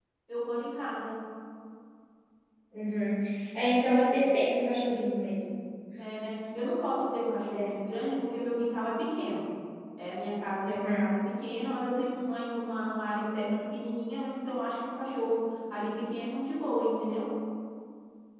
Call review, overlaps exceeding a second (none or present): none